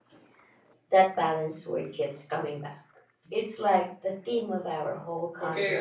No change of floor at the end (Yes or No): No